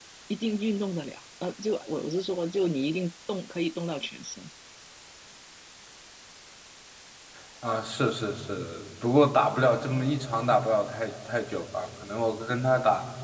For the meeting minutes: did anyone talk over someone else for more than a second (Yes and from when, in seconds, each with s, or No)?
No